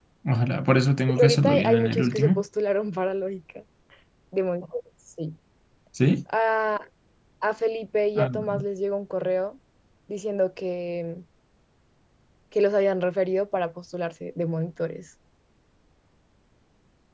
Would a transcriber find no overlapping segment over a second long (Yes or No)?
No